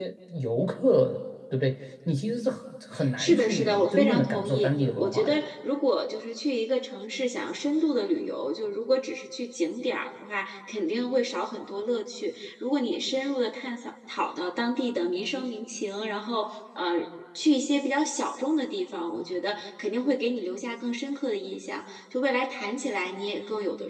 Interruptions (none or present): present